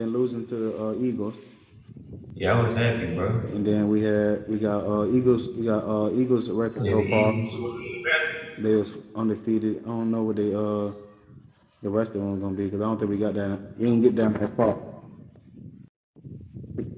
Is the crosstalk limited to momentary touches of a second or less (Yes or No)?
Yes